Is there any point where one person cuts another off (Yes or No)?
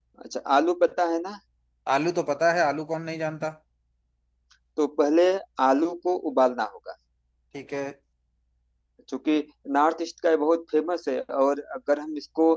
No